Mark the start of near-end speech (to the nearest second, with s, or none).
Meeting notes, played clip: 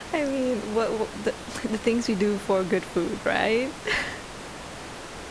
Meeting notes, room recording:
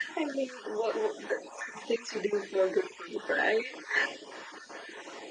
none